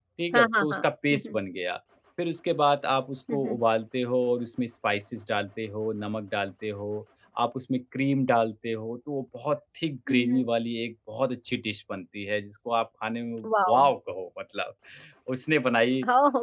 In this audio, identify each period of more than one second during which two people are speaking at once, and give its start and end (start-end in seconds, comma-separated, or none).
none